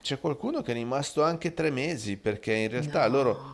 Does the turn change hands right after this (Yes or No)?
No